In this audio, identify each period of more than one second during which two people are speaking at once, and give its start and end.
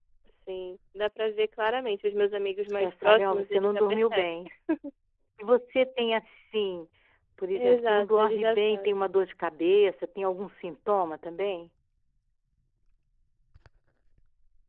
2.8-4.2, 7.5-8.9

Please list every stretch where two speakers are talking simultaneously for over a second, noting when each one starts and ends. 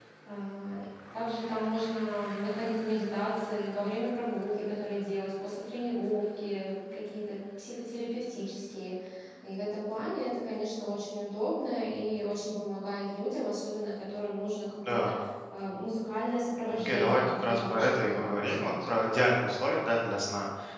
16.7-18.9

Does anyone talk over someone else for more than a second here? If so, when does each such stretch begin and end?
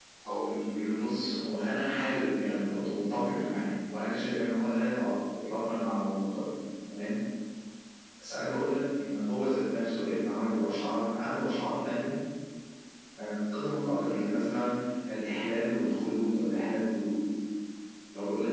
none

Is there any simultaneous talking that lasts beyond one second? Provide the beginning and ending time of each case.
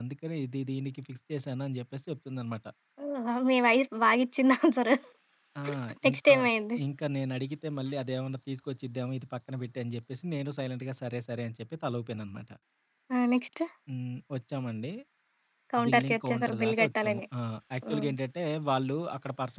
15.8-17.2

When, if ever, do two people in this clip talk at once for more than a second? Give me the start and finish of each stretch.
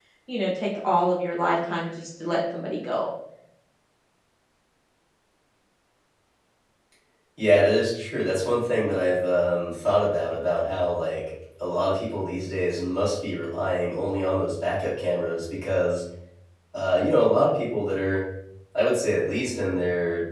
none

